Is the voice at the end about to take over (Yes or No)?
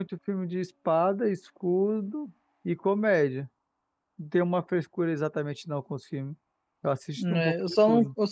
Yes